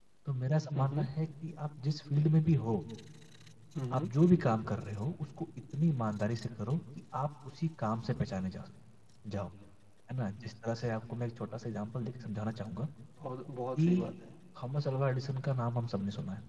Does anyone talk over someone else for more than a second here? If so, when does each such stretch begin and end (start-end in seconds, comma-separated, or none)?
none